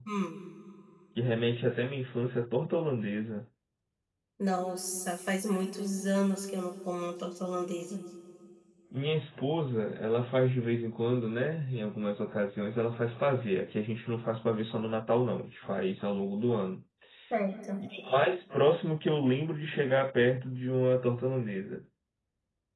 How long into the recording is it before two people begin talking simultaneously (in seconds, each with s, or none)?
none